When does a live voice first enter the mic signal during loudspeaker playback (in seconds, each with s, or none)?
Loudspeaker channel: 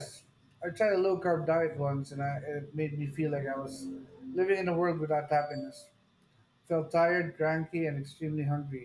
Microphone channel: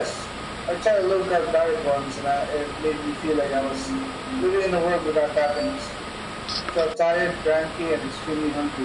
none